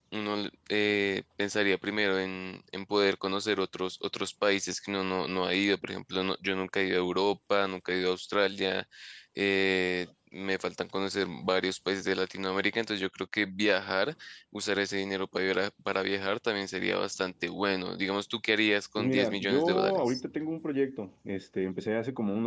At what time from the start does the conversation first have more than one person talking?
19.0 s

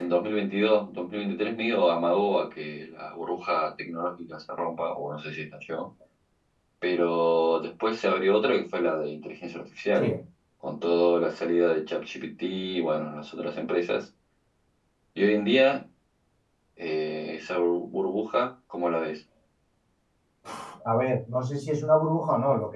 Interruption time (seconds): none

